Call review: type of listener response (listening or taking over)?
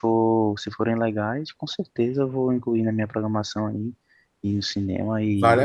taking over